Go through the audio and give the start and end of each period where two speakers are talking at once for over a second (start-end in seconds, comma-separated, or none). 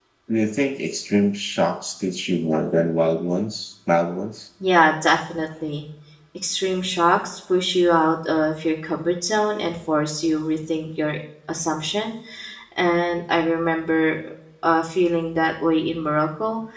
none